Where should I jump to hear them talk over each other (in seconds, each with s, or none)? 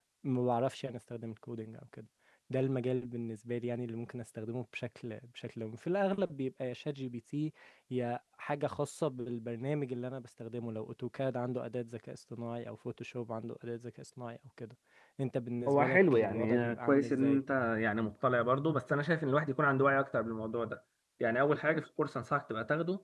15.7 s